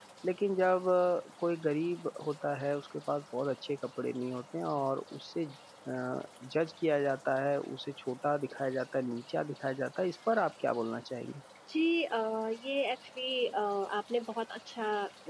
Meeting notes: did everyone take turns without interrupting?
Yes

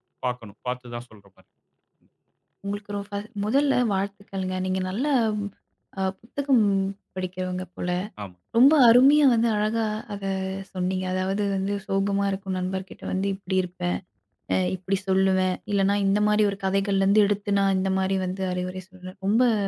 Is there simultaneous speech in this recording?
No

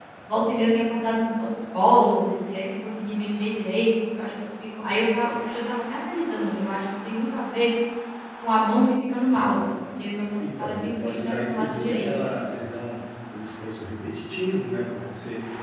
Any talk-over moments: Yes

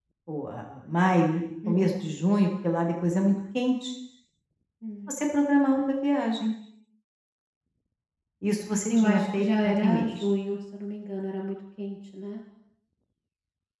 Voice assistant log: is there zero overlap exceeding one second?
No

